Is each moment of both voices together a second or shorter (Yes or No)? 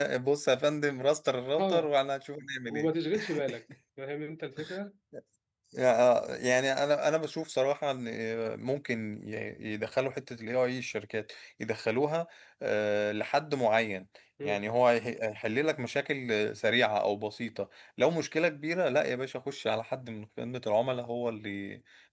Yes